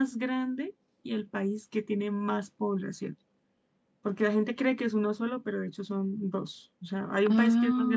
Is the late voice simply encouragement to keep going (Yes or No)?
Yes